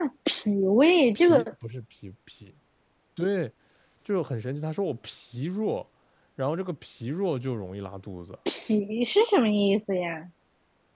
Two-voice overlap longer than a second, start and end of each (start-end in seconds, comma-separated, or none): none